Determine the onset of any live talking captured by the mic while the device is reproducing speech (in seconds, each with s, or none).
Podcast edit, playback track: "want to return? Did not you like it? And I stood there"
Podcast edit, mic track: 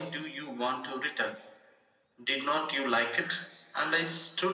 none